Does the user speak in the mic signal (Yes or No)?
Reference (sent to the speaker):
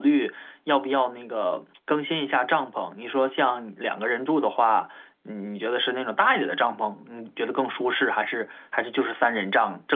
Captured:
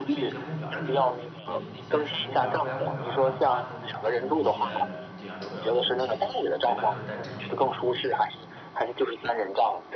Yes